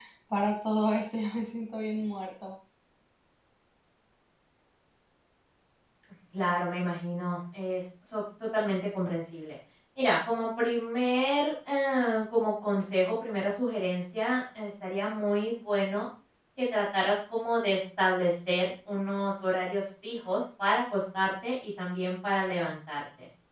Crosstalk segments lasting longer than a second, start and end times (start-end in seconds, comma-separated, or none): none